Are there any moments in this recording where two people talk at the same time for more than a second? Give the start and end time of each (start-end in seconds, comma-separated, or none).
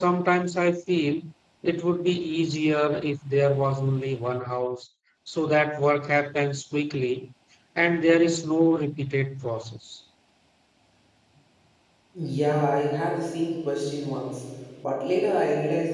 none